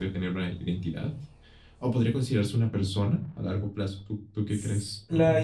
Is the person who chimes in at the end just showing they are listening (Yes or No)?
No